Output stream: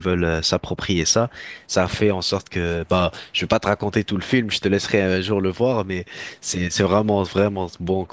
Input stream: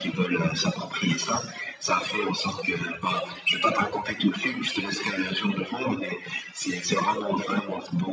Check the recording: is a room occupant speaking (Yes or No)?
No